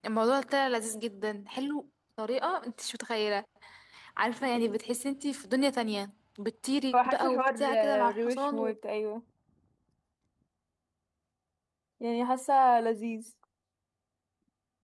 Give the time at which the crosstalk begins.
6.9 s

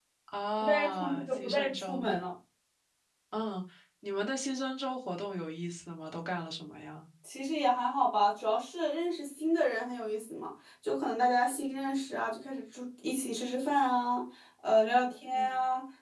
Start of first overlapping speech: 0.6 s

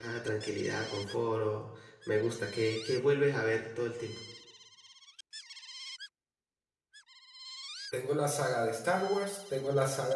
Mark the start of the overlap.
none

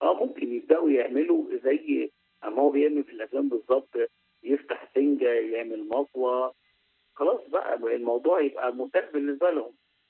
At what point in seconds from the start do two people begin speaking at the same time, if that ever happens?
none

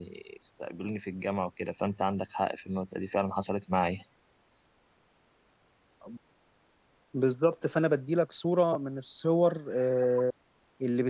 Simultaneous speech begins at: none

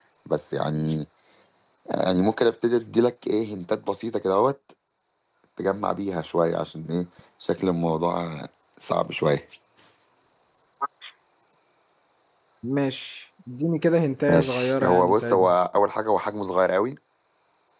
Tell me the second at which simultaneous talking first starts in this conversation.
14.3 s

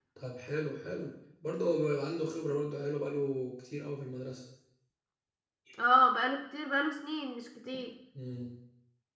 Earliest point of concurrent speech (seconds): none

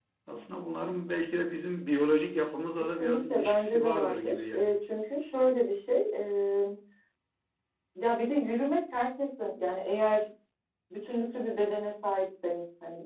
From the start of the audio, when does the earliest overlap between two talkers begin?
3.0 s

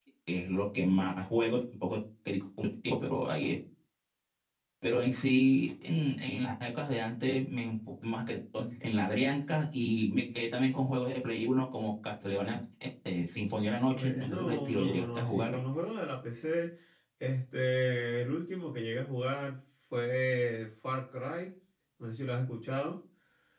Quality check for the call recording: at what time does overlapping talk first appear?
13.9 s

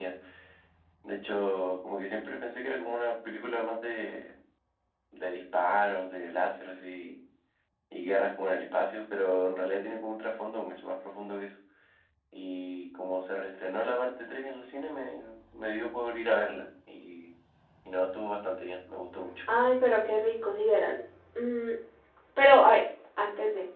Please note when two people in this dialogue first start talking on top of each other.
none

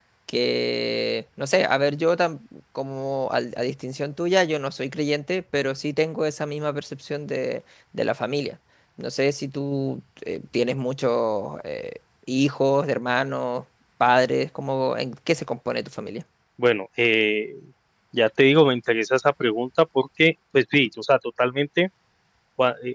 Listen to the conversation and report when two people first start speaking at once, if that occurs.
none

